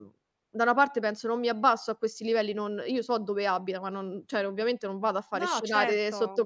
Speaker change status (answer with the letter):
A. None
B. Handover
A